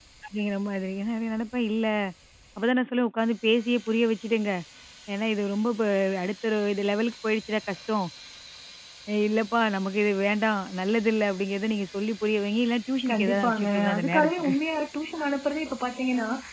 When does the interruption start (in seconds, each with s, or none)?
13.1 s